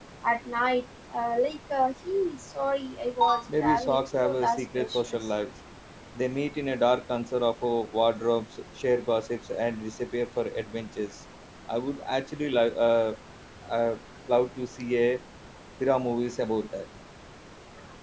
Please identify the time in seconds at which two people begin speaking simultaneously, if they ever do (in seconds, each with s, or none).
3.5 s